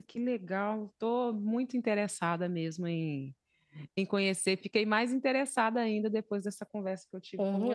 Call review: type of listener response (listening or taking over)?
taking over